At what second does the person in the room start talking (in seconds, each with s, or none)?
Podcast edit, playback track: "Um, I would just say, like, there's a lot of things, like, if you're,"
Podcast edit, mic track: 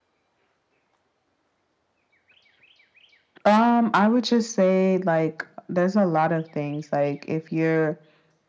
none